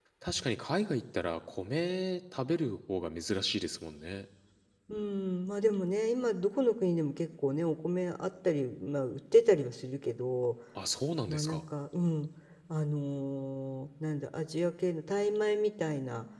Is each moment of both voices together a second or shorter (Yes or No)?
Yes